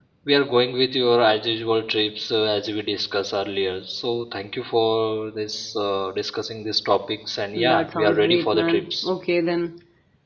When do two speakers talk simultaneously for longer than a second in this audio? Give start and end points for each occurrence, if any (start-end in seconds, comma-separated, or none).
7.5-9.1